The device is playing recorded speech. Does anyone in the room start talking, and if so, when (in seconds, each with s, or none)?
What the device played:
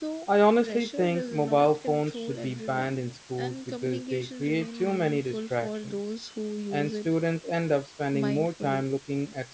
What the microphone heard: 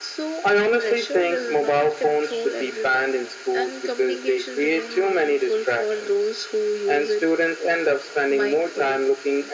none